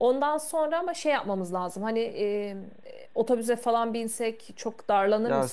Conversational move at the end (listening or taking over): taking over